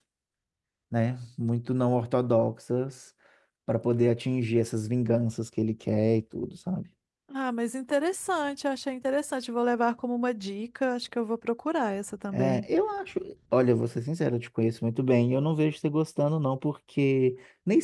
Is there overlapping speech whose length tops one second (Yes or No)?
No